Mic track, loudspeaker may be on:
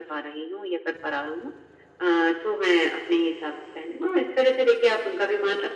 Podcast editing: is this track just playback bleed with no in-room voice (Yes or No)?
Yes